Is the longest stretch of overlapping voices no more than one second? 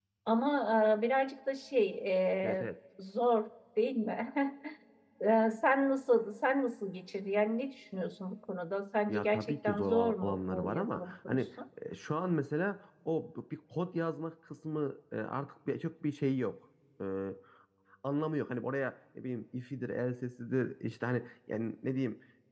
No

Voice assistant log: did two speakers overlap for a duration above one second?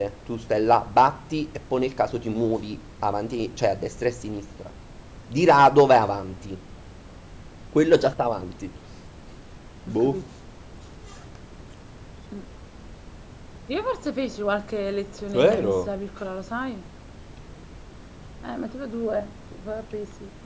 No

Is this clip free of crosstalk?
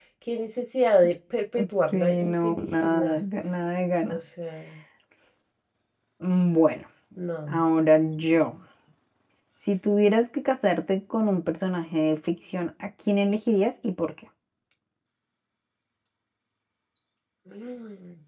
No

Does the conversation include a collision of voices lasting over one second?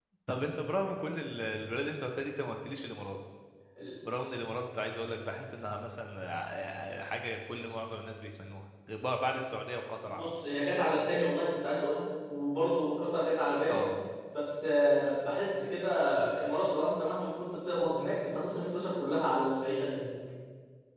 No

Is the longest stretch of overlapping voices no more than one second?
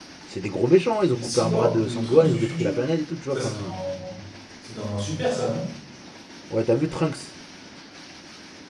No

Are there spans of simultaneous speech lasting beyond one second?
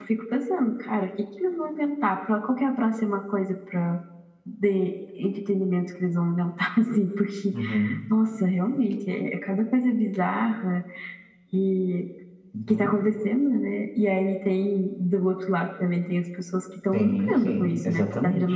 Yes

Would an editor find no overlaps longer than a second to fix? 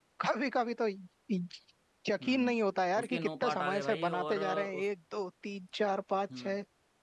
No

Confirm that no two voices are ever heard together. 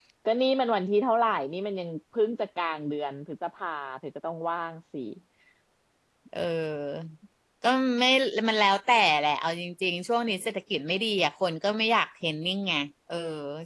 Yes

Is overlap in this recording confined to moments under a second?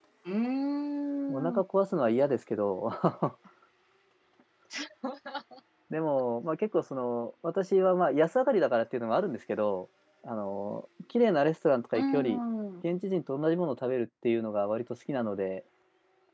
Yes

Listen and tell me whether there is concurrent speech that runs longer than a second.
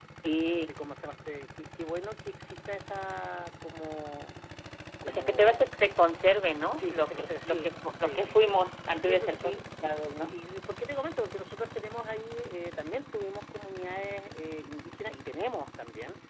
Yes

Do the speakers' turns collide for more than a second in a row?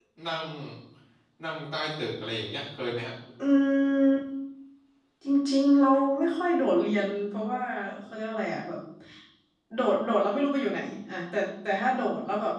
No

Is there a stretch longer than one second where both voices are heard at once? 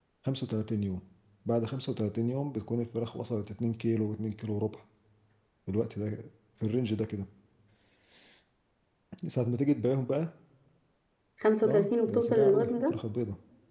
Yes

